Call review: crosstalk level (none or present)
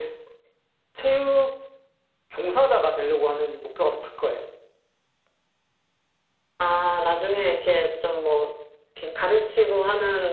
none